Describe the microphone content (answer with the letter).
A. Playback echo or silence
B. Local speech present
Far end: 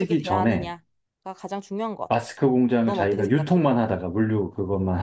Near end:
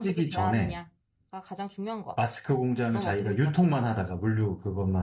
A